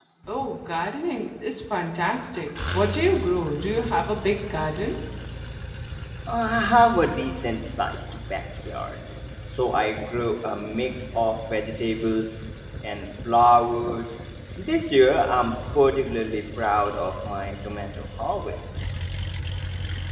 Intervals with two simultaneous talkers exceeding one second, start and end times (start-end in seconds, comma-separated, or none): none